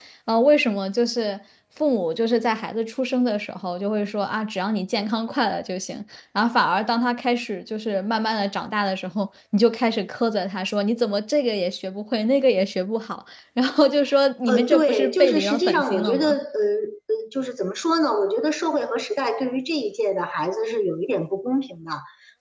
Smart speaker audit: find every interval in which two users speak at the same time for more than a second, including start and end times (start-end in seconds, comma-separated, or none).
14.5-16.4